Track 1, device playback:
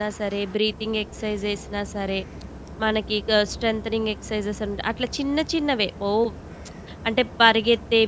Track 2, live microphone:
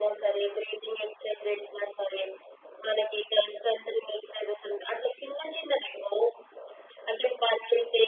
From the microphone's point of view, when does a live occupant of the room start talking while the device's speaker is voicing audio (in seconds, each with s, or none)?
none